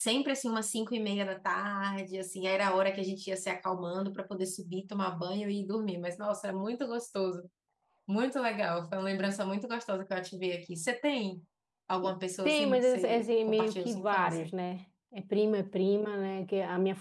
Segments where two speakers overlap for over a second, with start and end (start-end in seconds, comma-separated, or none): 12.4-14.5